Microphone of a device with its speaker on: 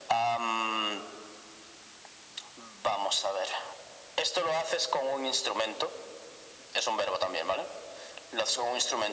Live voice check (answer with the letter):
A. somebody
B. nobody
B